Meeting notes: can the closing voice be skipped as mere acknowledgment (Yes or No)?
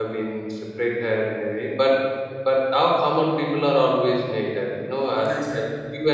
Yes